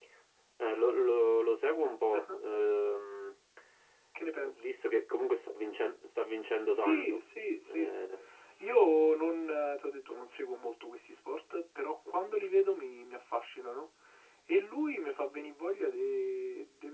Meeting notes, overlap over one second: none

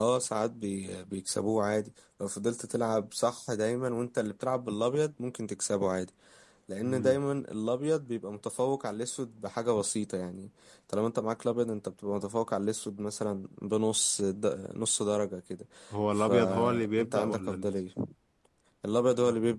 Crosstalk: present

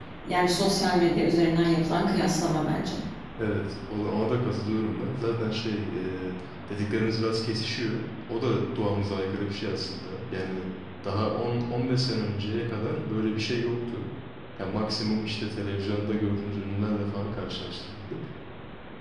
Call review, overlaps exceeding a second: none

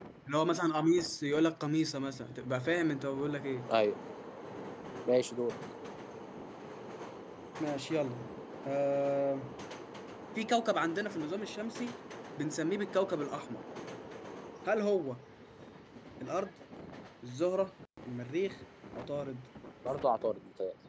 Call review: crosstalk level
none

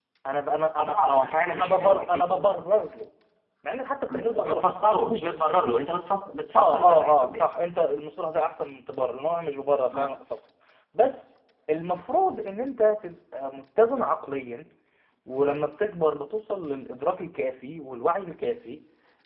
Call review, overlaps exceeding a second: present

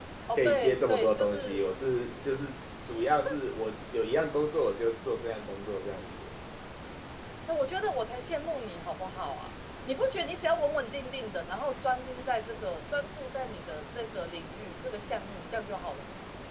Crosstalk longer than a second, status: present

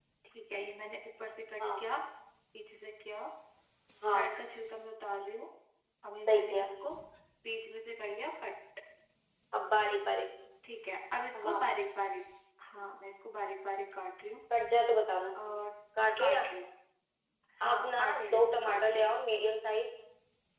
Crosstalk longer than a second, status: present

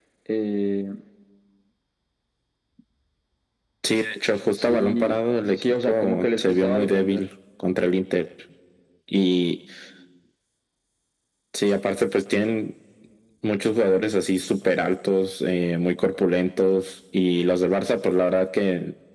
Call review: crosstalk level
present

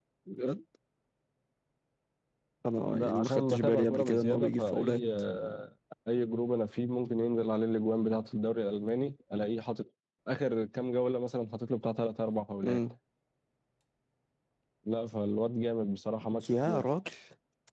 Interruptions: present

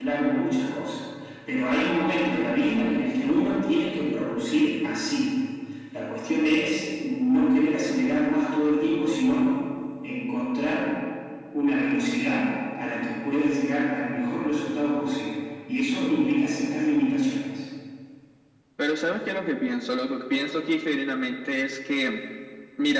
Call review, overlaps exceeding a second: none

